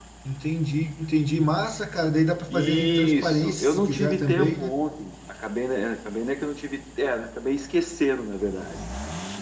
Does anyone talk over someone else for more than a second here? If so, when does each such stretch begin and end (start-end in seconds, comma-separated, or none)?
2.5-4.7